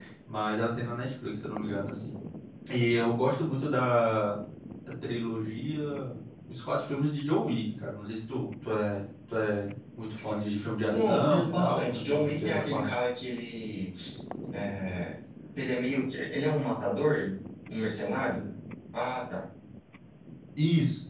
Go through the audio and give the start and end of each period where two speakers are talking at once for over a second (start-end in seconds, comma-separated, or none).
10.9-13.0